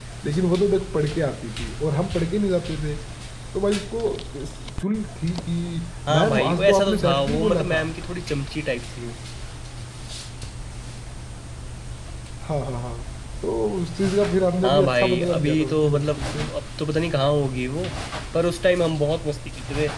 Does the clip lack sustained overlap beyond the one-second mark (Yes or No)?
No